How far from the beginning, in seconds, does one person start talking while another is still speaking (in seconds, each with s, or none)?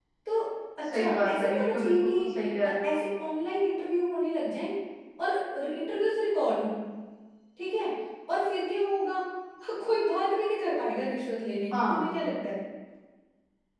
0.9 s